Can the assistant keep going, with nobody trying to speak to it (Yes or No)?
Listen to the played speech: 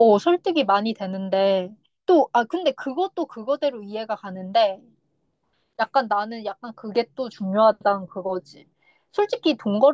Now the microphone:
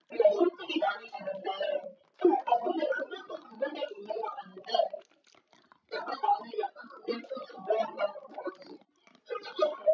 Yes